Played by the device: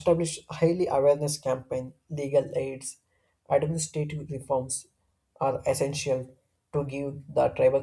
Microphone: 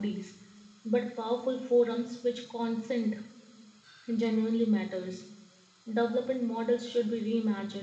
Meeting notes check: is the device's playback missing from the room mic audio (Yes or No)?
Yes